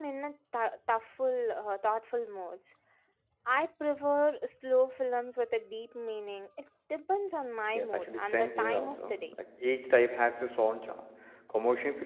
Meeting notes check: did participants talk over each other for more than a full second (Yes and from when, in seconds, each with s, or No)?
Yes, from 7.8 s